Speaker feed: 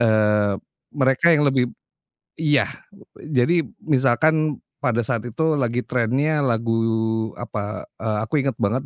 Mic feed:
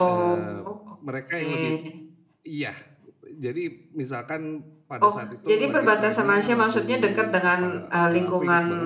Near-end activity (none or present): present